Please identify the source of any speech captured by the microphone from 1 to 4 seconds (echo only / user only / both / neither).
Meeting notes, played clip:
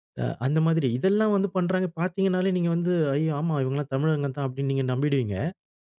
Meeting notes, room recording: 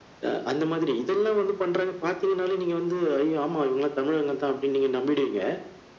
echo only